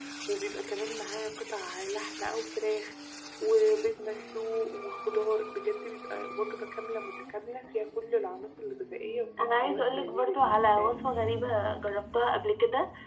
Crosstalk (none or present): present